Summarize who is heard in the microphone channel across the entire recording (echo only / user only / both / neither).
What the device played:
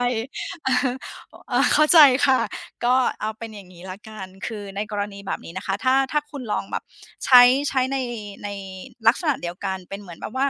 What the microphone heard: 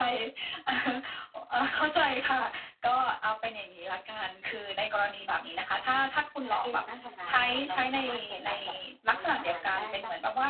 both